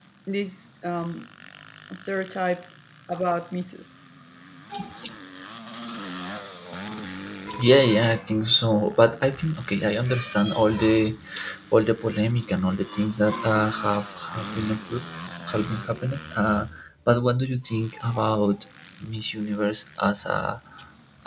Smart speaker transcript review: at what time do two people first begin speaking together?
none

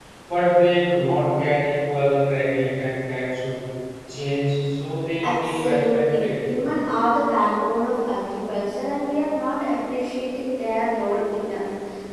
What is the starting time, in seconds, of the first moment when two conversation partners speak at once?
5.2 s

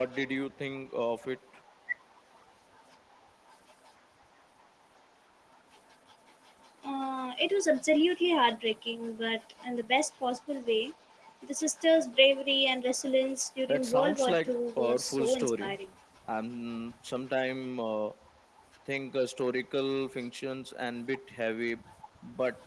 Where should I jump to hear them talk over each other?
13.7 s

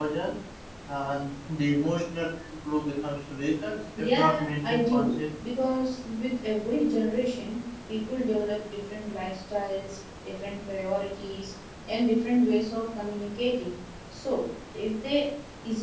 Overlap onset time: 4.0 s

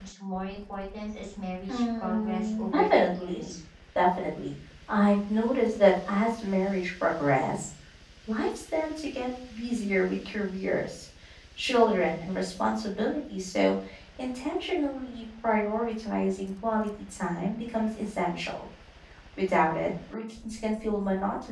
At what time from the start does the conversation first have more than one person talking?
1.7 s

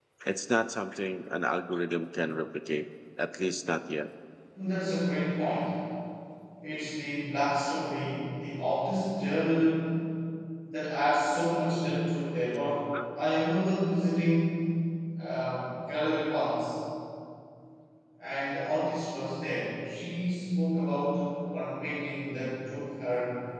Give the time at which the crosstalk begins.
none

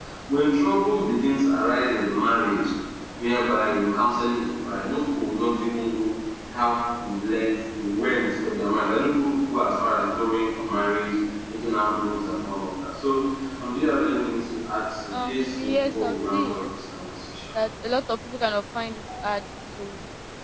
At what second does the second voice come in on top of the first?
15.1 s

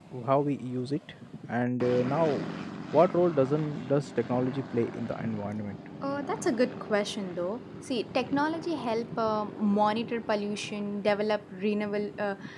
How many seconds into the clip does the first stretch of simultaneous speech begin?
none

